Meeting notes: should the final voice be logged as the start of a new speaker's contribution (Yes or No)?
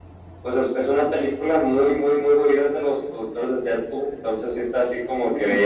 No